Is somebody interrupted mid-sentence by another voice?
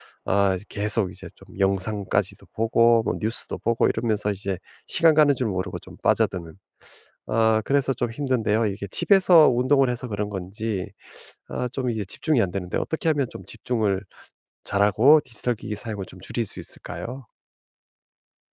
No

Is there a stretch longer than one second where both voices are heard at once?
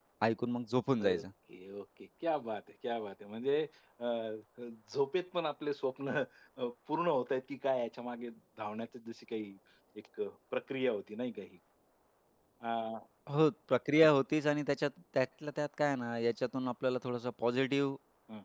No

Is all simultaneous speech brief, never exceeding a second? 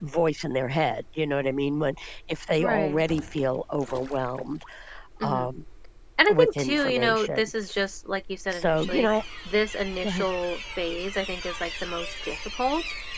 No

